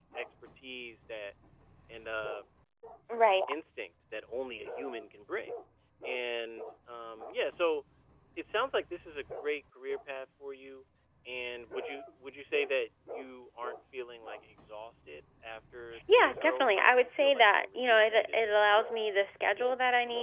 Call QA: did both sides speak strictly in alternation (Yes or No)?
No